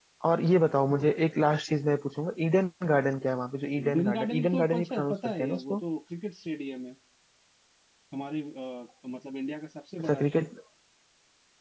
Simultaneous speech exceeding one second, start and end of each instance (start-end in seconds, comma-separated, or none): 3.8-5.8